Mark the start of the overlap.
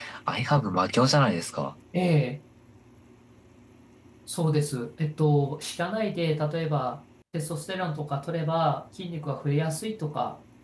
none

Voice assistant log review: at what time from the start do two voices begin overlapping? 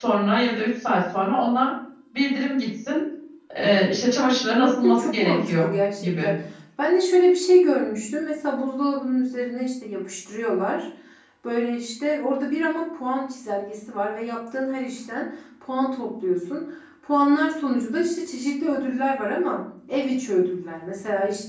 4.5 s

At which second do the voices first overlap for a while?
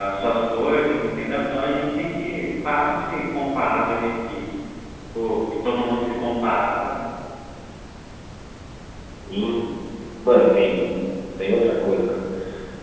none

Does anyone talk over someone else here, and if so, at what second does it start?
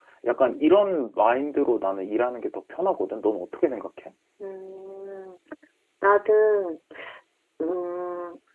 none

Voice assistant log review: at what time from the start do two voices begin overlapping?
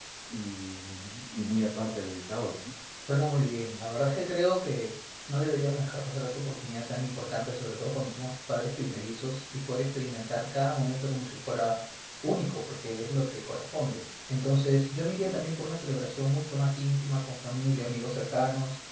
none

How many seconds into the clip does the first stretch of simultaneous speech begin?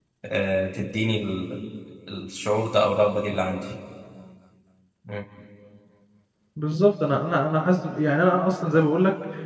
none

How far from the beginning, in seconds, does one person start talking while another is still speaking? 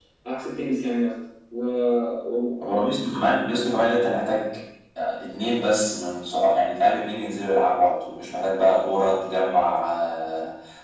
none

